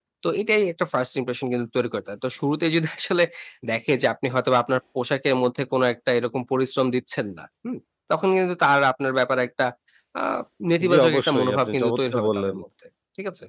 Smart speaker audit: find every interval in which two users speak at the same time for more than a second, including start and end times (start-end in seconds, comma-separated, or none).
10.9-12.6